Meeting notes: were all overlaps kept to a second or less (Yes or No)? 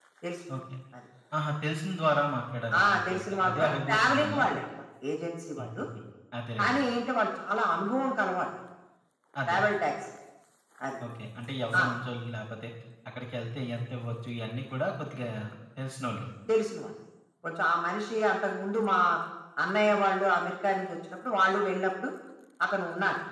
No